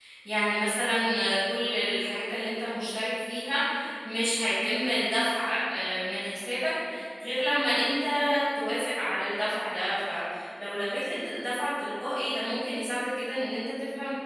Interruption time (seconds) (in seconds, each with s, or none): none